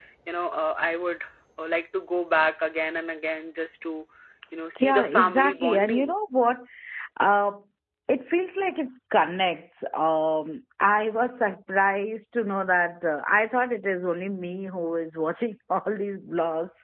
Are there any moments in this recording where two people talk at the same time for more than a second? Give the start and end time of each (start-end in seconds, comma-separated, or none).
4.8-6.2